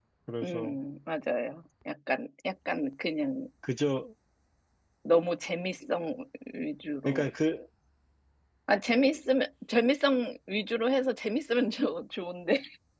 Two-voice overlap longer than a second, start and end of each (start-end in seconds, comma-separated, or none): none